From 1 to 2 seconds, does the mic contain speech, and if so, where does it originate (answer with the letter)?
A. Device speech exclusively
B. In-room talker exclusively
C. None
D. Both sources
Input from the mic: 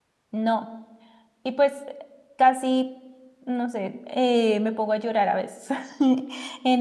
B